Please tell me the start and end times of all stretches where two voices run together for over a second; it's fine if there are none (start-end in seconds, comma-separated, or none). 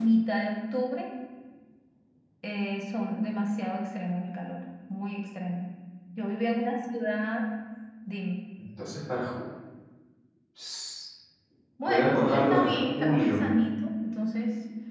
11.9-13.4